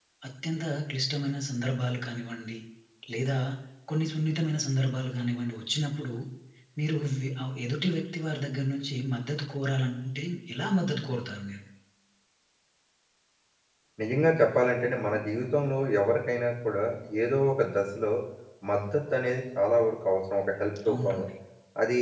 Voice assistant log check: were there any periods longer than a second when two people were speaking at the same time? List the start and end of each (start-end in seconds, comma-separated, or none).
none